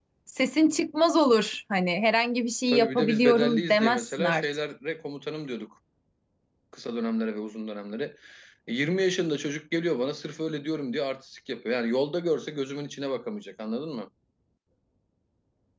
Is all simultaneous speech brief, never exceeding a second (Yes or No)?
No